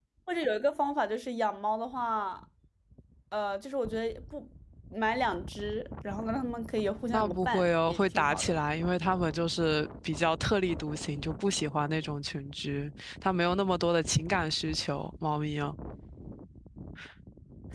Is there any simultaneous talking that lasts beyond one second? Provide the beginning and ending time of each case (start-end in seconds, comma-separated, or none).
7.1-8.5